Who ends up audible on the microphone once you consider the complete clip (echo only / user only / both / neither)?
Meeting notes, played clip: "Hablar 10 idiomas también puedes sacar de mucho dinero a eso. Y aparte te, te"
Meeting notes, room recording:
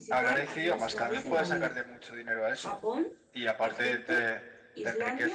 both